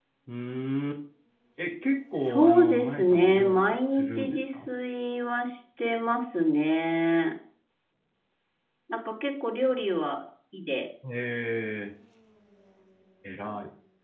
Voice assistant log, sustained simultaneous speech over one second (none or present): present